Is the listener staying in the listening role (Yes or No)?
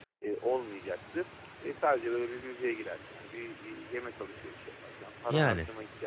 Yes